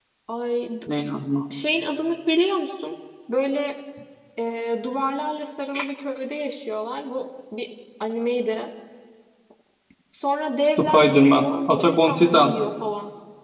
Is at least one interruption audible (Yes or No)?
Yes